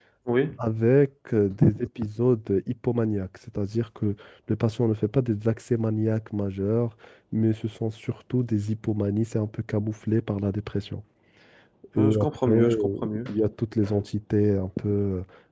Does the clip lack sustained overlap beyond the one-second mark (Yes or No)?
No